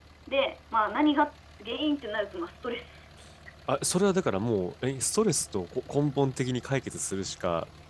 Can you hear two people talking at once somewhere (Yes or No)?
No